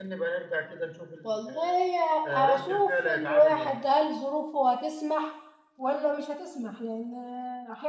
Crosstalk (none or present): present